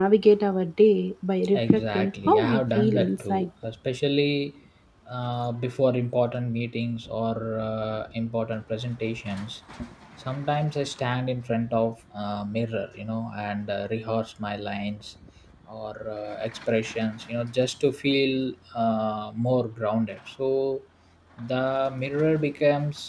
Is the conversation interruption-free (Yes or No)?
No